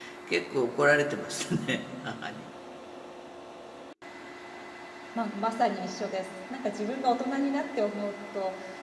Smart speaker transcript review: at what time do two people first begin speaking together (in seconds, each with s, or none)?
none